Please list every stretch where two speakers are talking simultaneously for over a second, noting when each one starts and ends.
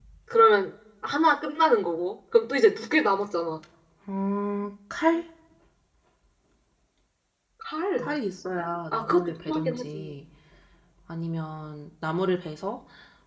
8.9-10.1

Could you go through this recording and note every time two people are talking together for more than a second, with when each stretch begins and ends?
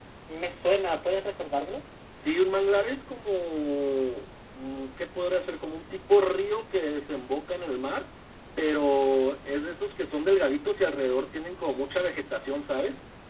none

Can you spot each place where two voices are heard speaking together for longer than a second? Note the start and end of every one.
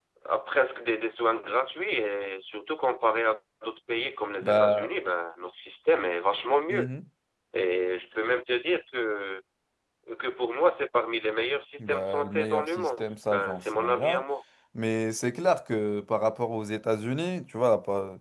11.8-14.2

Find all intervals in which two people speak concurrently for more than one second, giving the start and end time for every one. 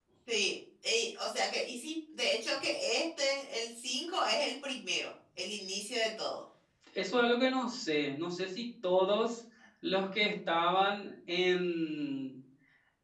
none

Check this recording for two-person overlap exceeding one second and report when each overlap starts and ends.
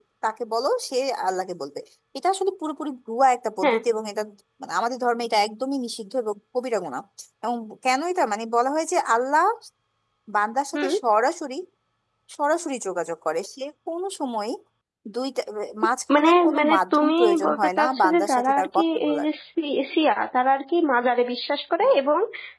16.1-19.3

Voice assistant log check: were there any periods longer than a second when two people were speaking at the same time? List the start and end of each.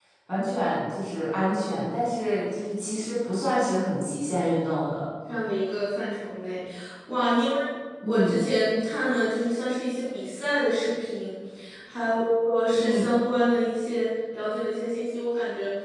none

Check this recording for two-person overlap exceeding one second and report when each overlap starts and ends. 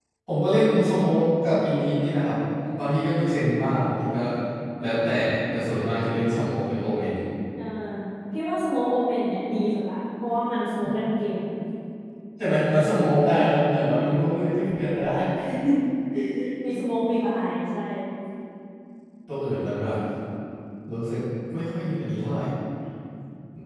none

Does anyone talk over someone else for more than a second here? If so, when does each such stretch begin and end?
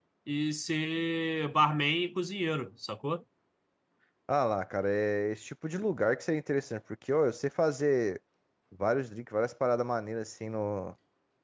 none

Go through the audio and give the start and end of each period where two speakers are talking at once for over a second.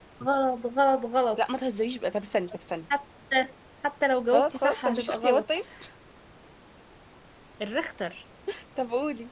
4.3-5.6

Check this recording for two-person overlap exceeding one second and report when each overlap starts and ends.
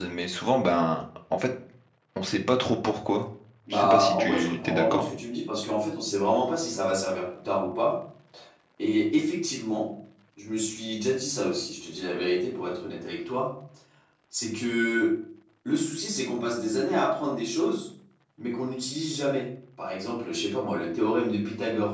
3.7-5.0

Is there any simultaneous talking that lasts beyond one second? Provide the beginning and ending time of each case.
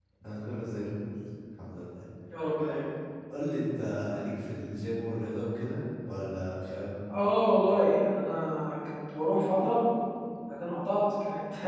none

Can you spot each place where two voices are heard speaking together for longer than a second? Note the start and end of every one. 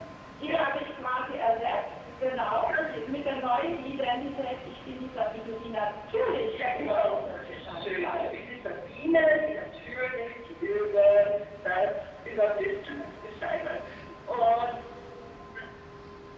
6.5-8.5

